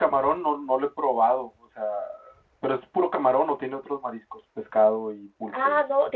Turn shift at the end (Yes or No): Yes